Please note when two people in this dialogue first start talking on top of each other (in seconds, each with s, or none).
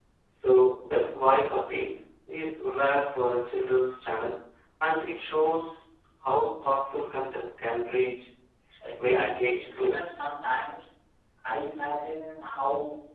9.0 s